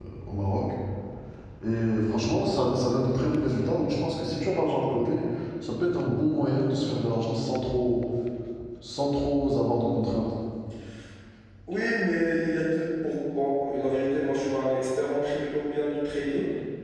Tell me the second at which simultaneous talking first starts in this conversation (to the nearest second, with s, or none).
none